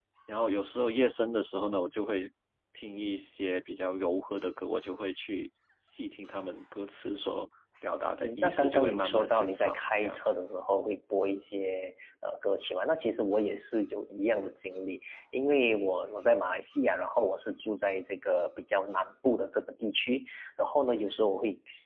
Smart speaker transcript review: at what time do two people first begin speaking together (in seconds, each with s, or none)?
8.2 s